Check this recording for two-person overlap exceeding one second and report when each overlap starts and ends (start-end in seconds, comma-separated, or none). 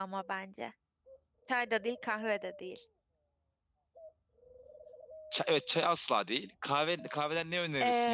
none